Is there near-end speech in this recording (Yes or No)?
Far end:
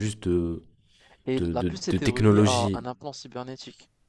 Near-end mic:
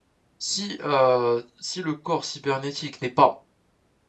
Yes